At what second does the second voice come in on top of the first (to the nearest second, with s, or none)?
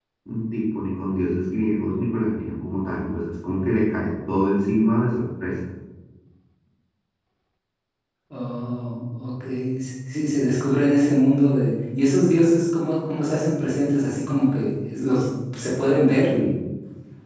none